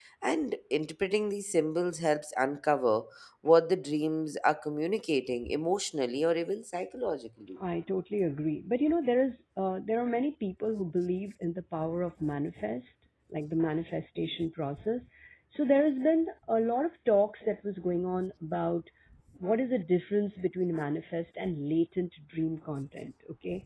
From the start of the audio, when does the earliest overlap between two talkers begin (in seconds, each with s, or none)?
none